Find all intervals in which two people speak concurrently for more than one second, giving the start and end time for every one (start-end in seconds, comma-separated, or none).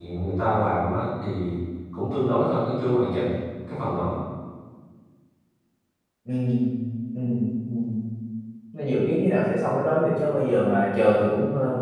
none